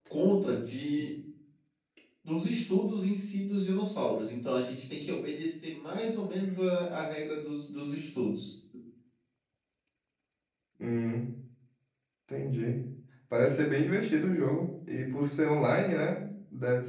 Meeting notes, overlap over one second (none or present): none